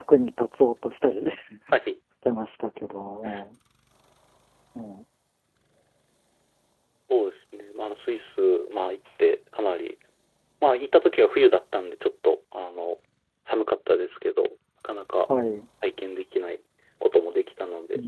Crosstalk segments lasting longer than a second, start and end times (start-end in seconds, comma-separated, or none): none